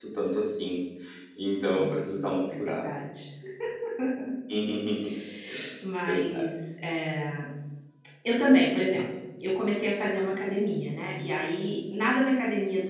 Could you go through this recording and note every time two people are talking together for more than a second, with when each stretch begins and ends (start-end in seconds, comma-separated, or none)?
none